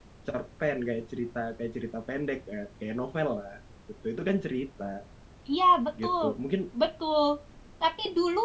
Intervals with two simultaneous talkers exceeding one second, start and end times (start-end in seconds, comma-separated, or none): none